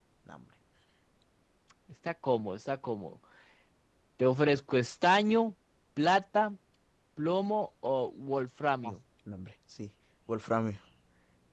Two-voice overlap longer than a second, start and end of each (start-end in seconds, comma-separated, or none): none